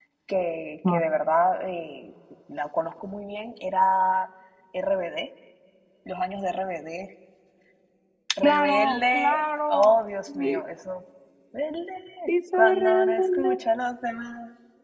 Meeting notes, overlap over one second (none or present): present